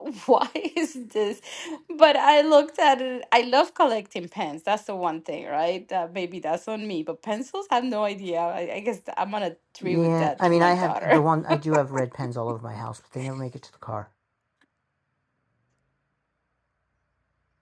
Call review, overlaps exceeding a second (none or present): present